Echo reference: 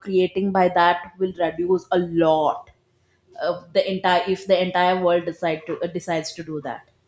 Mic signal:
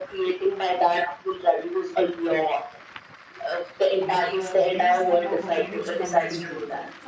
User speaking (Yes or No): Yes